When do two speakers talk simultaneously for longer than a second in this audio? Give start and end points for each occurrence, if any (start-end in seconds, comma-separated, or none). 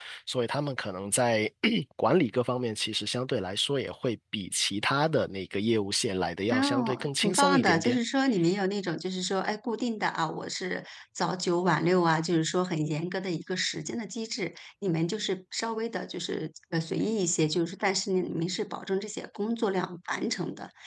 6.5-8.0